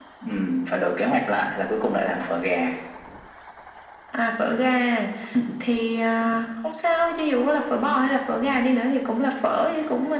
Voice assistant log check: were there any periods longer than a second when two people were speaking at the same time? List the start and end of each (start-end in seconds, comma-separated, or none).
none